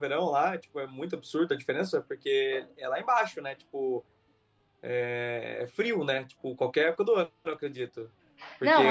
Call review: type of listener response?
listening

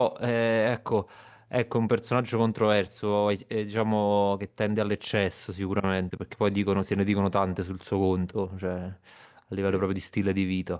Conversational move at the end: listening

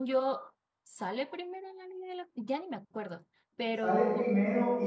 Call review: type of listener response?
taking over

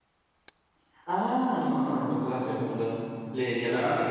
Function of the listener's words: taking over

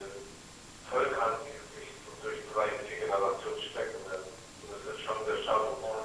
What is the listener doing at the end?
listening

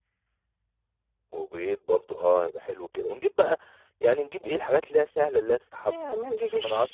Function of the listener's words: taking over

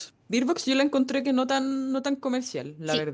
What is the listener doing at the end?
taking over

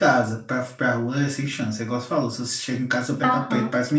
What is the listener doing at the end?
taking over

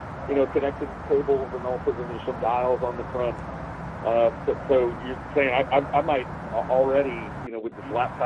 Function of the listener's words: listening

